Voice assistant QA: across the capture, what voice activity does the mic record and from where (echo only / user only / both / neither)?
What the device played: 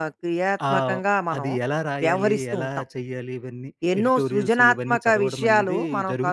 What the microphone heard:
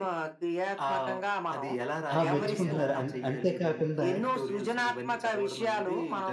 both